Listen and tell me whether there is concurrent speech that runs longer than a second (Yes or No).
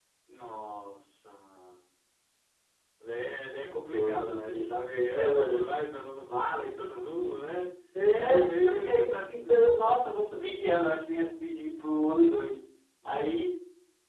Yes